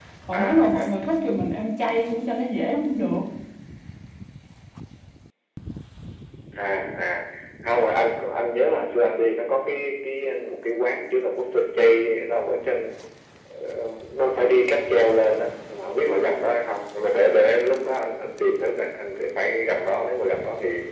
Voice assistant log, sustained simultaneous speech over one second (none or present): none